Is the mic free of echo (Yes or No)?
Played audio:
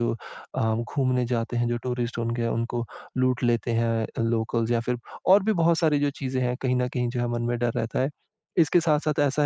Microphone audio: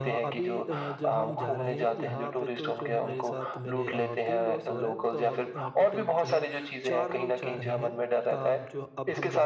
No